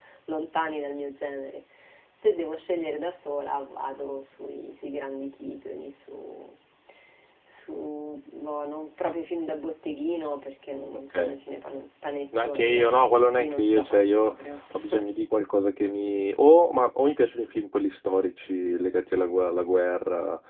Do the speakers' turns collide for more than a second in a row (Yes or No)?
Yes